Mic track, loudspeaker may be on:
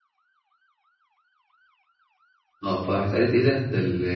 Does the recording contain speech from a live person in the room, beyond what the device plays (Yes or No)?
Yes